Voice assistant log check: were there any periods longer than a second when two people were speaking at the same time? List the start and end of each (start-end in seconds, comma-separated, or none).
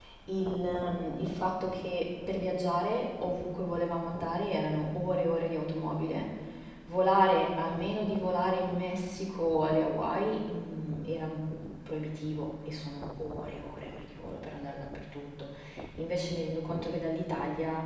none